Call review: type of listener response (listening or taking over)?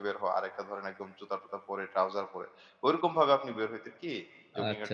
taking over